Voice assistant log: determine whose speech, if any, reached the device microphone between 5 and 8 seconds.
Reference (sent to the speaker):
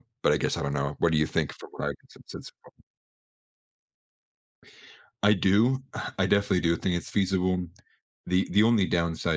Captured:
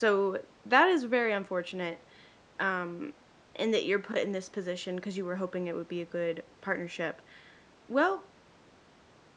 user only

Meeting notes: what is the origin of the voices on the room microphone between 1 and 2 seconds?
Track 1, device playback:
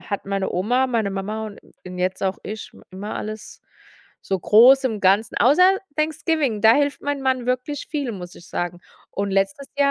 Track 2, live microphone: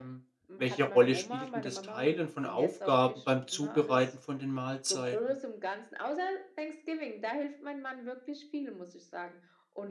both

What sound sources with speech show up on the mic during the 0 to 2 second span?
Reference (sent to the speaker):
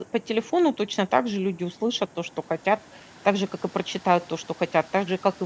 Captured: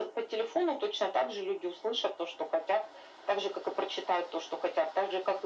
echo only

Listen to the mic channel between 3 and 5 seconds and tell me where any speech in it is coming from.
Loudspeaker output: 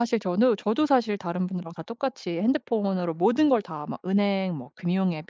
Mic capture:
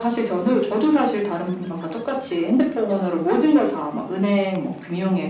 echo only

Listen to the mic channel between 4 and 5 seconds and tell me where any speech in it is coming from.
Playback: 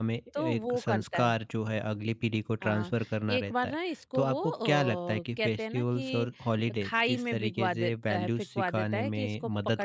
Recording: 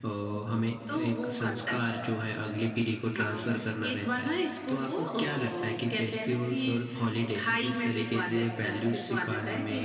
echo only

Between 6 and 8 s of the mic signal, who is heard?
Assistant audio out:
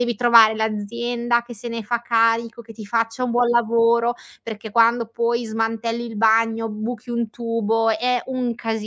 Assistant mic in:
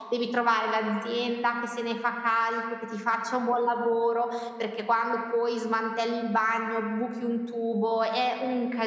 echo only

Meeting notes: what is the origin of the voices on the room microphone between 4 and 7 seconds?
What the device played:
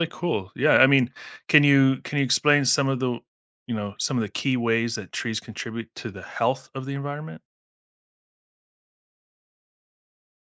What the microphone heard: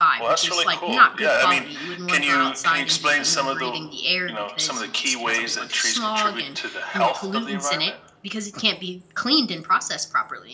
both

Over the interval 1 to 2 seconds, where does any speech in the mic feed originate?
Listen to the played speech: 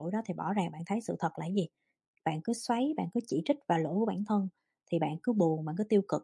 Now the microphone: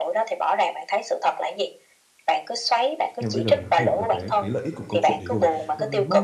echo only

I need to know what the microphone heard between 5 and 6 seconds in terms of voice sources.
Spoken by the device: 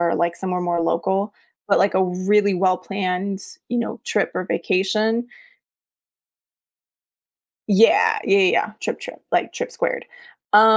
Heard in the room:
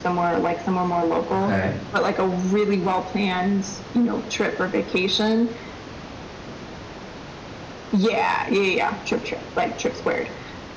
echo only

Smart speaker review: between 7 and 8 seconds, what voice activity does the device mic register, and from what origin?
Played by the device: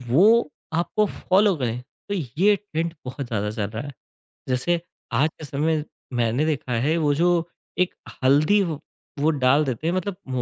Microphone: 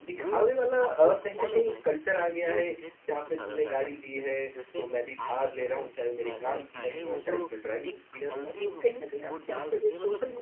both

